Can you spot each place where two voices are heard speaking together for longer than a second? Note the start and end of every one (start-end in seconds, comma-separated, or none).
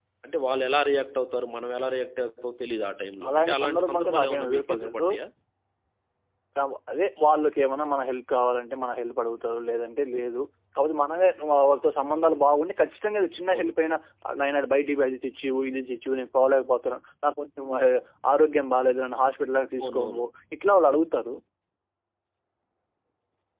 3.3-5.1